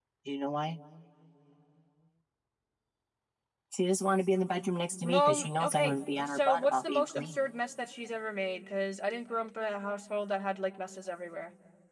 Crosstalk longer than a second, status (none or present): present